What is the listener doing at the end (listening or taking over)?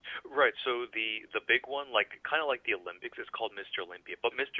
listening